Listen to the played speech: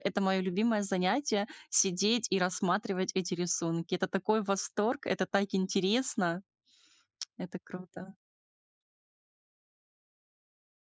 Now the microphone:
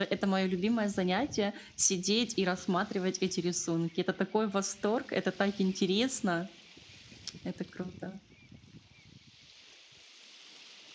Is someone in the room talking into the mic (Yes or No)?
No